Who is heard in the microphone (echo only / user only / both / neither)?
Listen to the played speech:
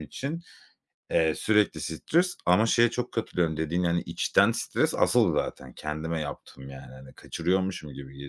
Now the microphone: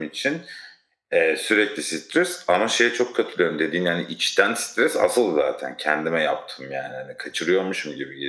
echo only